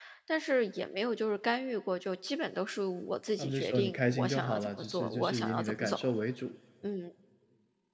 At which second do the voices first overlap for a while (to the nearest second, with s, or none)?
3 s